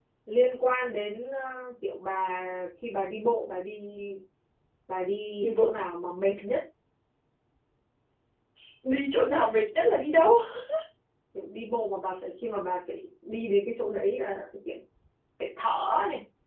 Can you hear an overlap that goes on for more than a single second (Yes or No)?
No